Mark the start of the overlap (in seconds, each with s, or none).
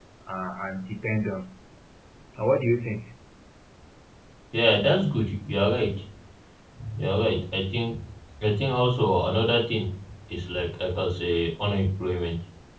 none